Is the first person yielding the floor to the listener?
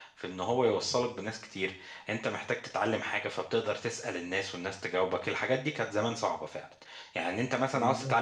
No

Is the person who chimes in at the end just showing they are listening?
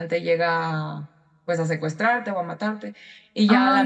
Yes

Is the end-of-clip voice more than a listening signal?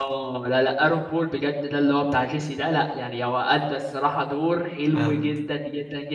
No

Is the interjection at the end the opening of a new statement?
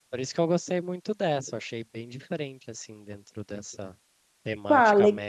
Yes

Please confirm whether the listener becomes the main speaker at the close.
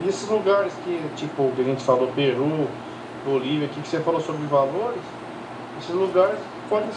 No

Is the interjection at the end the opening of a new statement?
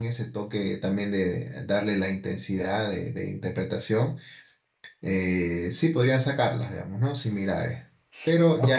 Yes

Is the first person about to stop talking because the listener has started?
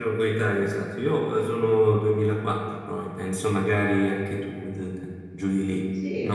Yes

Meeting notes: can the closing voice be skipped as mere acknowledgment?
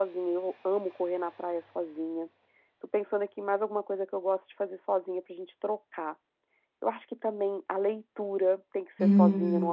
No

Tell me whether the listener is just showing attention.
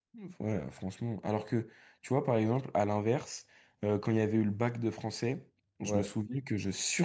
Yes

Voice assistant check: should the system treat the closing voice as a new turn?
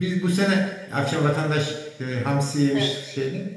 No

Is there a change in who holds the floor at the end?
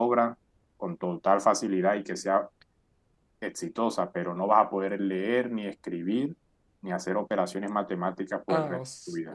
Yes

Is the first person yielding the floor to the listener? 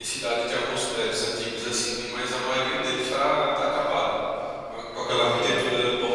No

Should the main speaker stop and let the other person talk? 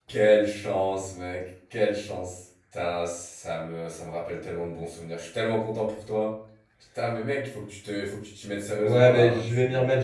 Yes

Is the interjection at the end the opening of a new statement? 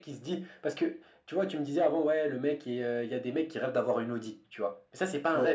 No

